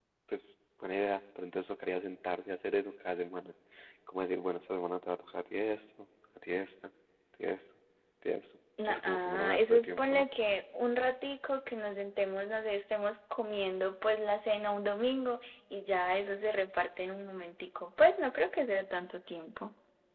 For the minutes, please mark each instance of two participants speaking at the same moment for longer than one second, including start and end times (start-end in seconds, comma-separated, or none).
8.8-10.3